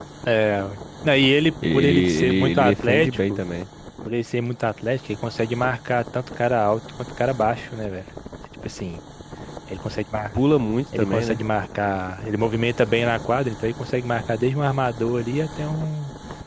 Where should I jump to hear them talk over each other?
2 s

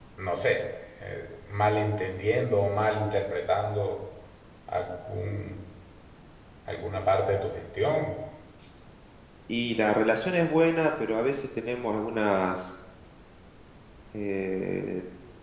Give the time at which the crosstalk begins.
none

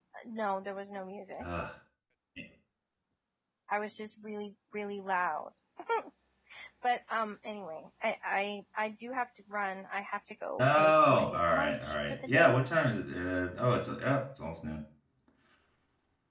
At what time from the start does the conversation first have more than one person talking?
11 s

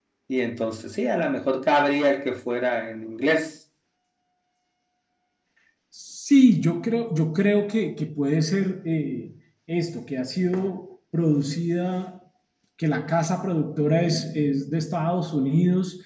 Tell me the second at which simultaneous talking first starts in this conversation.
none

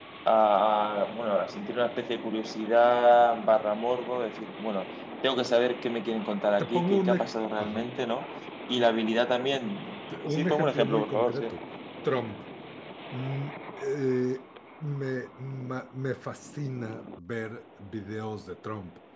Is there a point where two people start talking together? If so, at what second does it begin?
7 s

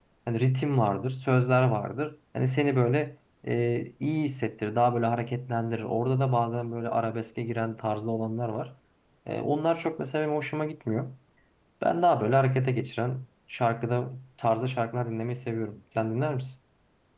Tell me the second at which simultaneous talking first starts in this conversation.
none

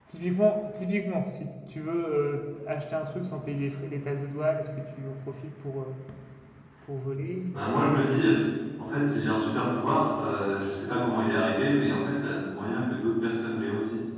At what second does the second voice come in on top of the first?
none

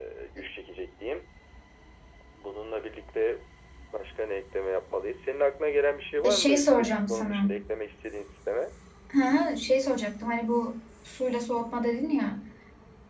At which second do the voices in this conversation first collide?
6 s

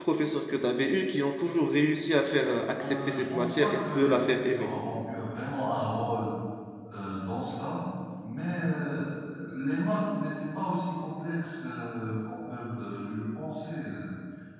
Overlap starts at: 3 s

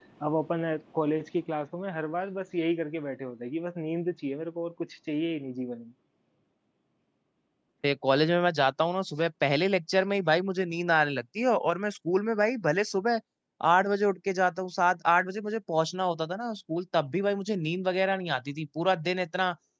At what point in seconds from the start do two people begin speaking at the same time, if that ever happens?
none

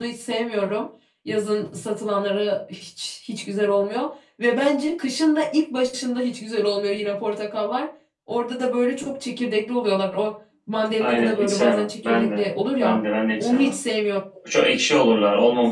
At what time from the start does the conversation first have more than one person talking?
11 s

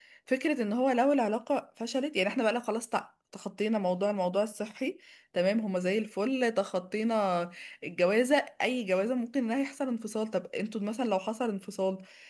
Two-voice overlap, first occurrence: none

